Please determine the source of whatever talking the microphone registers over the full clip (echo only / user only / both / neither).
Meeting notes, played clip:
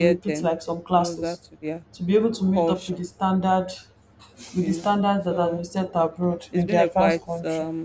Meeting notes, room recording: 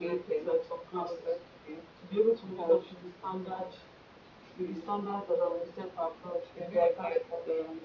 echo only